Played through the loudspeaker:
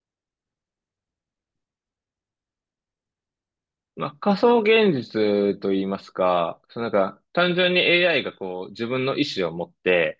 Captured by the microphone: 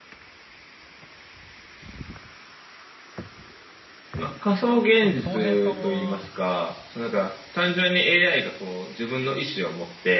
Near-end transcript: そうすると、恭平さんは

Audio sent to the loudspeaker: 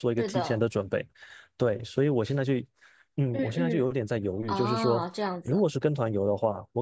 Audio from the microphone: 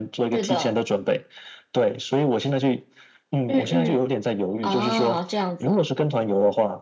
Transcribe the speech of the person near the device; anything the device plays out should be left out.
none

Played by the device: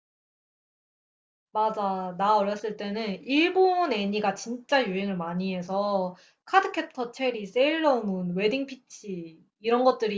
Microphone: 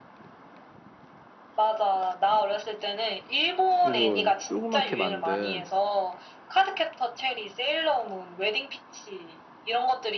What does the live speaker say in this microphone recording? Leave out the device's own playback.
조금 조그맣게 만든

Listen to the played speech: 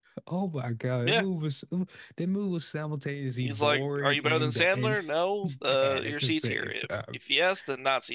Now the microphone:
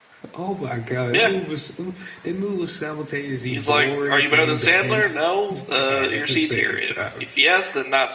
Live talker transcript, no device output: none

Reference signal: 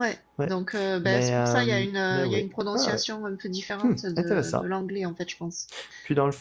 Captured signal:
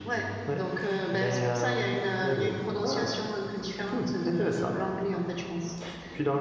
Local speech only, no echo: none

